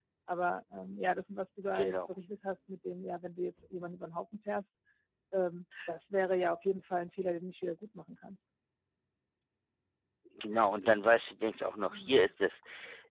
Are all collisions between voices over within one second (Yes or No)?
Yes